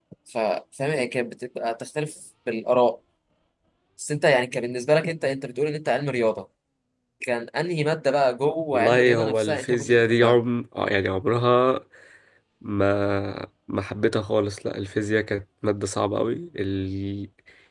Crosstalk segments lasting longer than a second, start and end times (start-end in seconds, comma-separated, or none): 8.7-10.4